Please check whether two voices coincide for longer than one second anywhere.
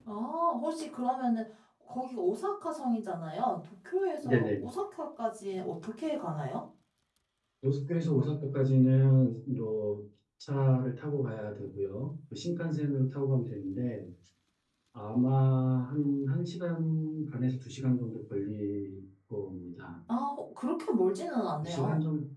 No

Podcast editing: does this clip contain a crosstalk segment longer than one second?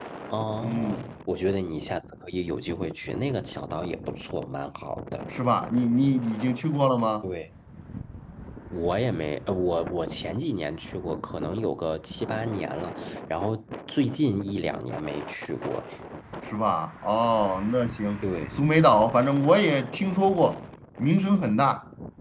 No

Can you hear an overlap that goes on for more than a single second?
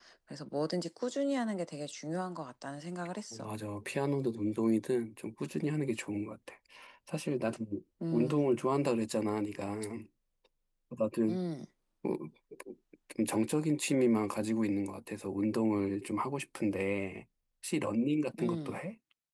No

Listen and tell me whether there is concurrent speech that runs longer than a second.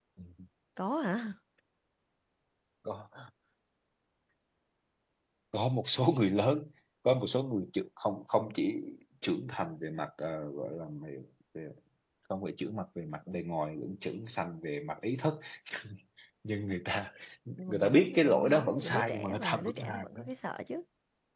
Yes, from 17.6 s

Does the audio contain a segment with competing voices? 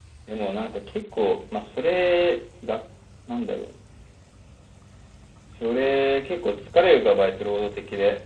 No

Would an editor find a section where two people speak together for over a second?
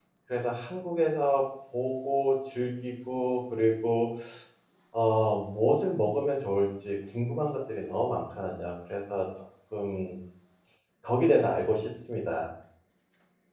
No

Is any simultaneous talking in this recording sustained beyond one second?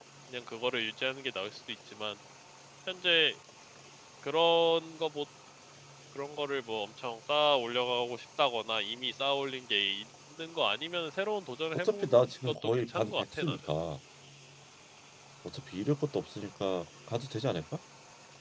Yes, from 11.7 s

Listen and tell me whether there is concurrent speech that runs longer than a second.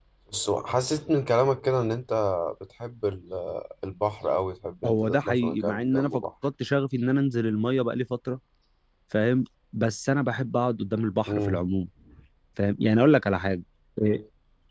Yes, from 4.8 s

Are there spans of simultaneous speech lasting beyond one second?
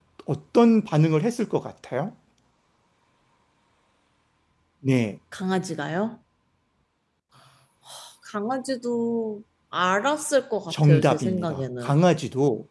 Yes, from 10.7 s

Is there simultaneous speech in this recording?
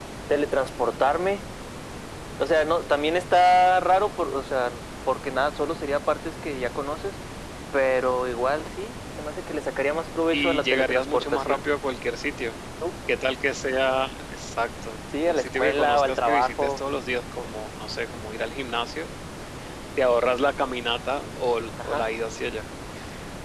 Yes, from 10.3 s

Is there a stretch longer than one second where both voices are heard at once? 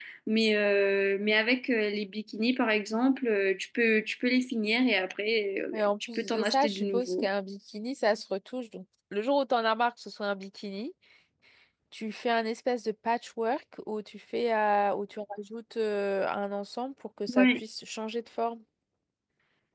Yes, from 5.7 s

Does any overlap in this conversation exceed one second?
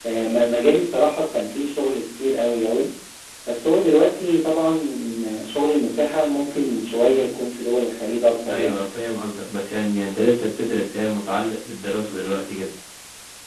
No

